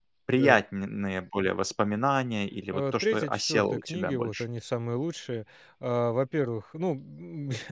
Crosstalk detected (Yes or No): Yes